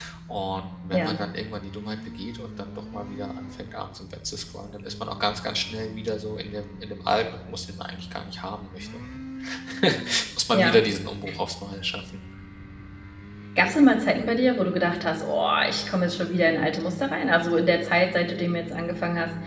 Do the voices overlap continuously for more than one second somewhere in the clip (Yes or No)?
No